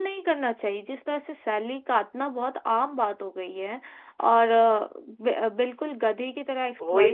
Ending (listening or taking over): listening